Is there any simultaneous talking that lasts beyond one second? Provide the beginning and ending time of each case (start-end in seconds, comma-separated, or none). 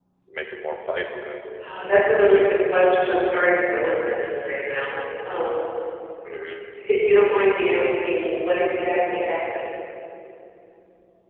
none